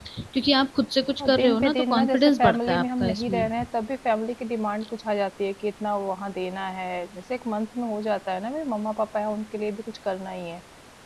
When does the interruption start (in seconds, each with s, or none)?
1.2 s